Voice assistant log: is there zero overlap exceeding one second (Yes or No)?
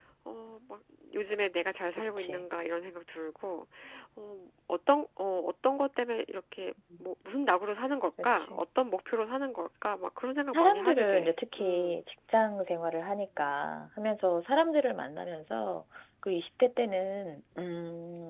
No